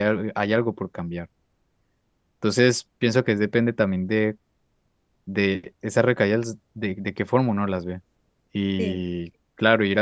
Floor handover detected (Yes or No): No